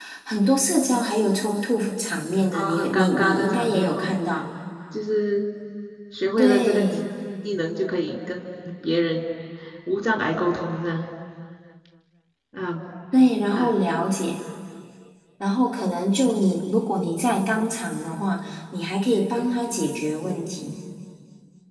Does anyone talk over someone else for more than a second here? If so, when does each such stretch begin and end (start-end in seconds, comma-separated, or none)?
2.5-4.1